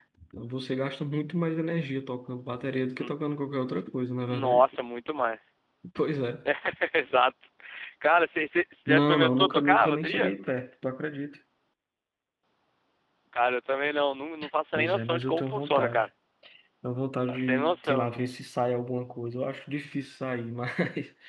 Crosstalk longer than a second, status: present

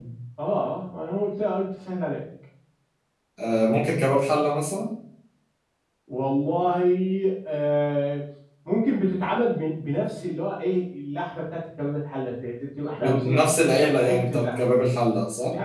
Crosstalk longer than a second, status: present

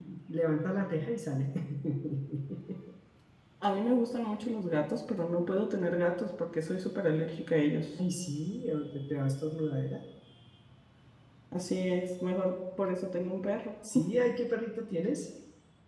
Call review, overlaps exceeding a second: none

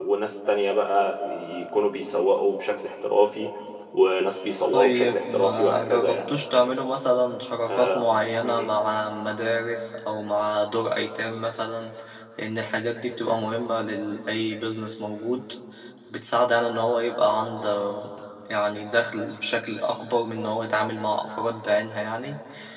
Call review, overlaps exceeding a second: present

